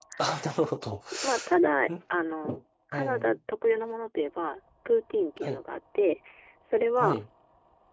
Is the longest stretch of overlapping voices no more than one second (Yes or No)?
Yes